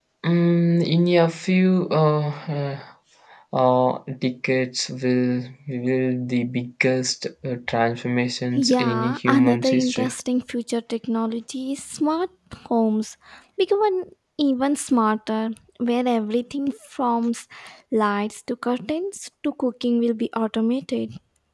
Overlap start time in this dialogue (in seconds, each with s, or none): 8.6 s